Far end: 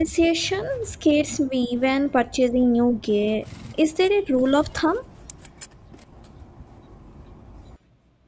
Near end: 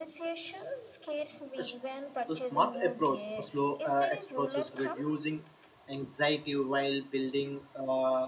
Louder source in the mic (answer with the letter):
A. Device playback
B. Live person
B